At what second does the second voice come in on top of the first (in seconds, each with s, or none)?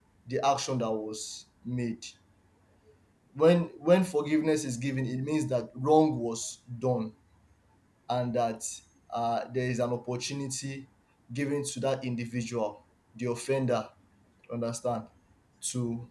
none